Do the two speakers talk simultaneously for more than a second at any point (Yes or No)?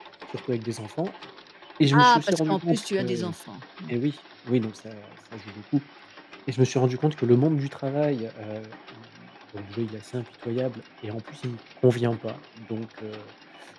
Yes